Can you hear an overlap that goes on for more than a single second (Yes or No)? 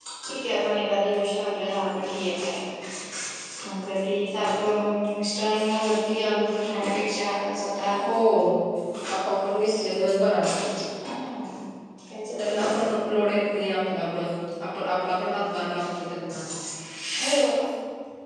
No